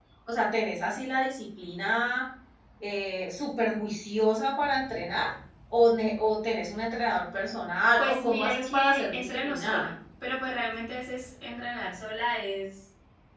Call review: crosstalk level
present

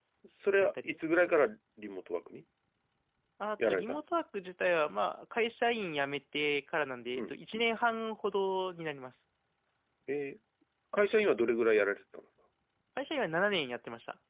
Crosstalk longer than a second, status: none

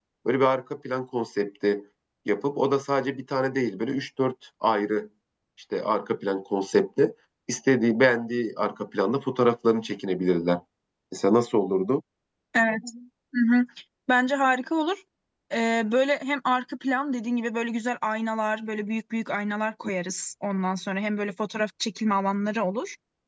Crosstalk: none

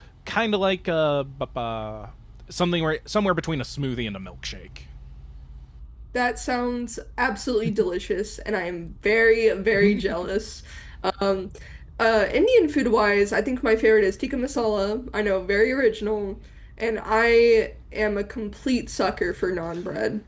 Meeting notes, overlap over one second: none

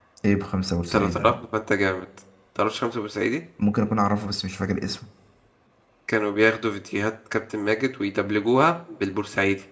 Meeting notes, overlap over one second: none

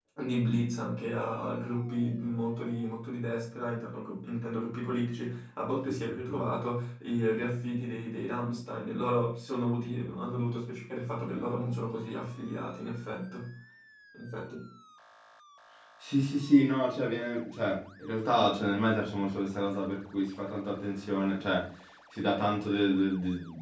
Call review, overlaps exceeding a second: none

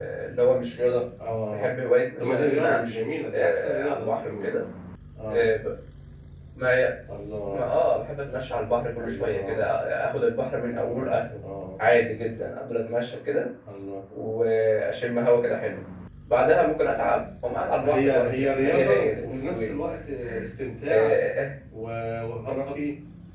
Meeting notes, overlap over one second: present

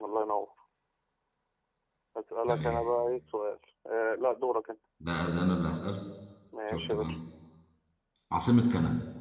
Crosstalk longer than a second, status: none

